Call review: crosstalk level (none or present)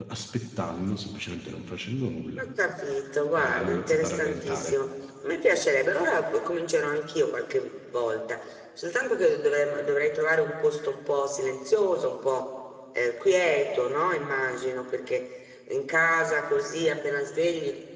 present